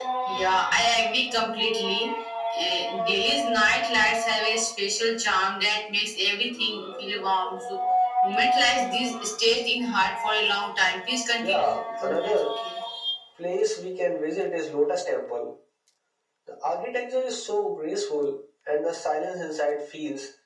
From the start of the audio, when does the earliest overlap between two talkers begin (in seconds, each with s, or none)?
11.3 s